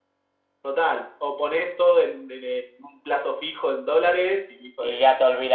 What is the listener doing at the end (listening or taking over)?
taking over